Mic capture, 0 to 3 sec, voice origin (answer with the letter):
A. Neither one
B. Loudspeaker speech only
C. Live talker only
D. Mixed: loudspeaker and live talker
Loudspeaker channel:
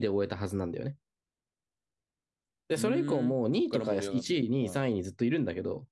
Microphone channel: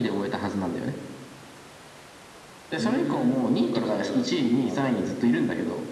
B